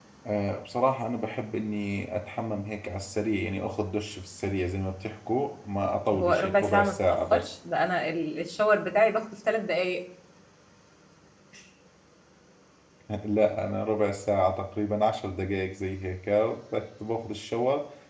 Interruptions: present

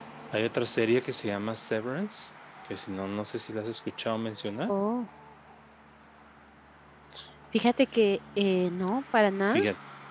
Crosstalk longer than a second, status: none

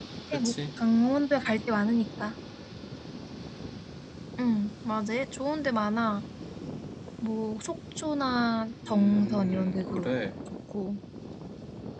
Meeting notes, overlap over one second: present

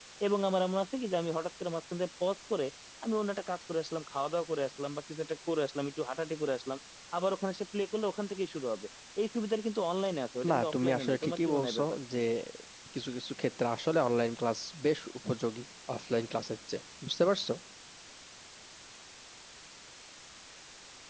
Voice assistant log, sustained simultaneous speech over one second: present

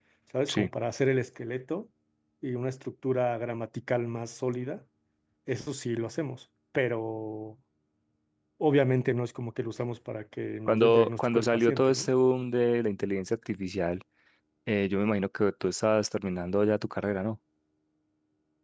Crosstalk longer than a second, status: present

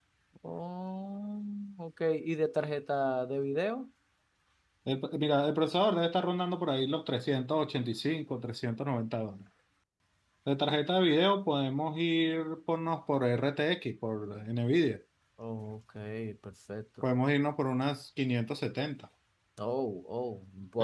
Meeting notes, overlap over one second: none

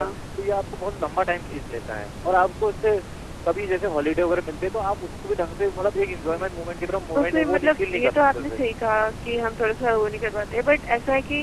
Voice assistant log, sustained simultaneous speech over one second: present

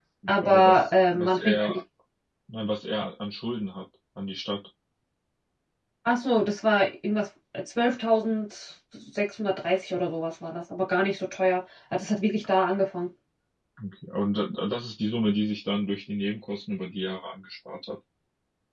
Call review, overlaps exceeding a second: present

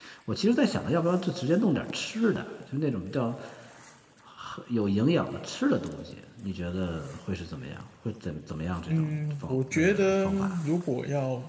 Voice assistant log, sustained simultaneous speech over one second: present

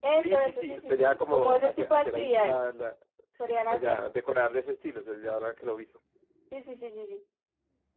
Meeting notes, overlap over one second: present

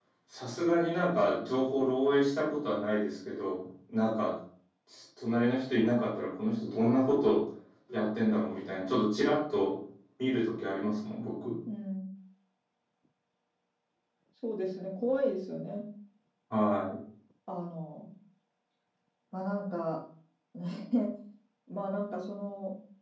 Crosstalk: none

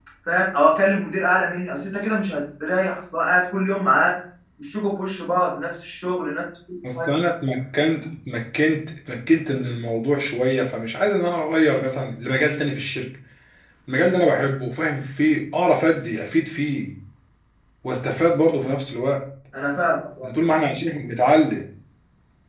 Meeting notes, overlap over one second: none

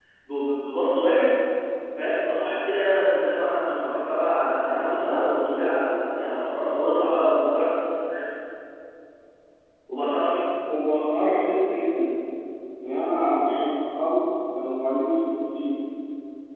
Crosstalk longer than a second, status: none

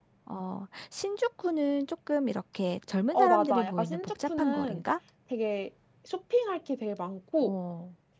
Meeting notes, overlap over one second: present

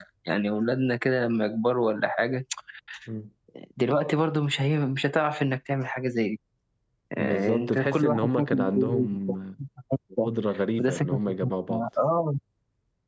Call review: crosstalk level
present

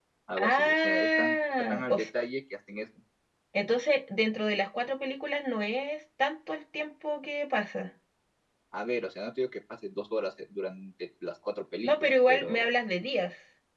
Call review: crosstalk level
present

